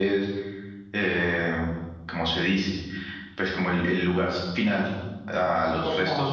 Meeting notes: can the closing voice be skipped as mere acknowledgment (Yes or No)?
Yes